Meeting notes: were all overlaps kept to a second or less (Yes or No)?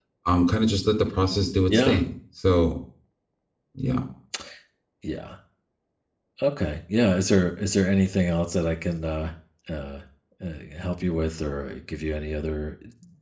Yes